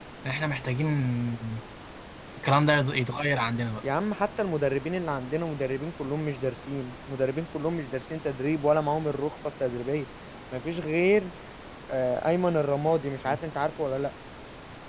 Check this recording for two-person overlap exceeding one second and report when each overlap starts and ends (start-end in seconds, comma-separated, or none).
none